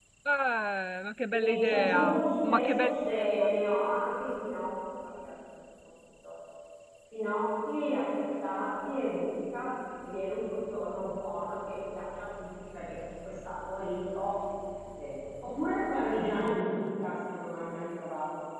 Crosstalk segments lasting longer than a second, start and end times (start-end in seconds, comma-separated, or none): 1.3-3.5